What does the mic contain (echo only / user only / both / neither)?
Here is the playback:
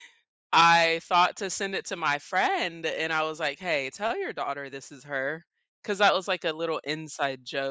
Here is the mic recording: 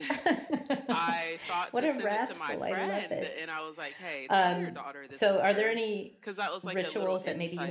both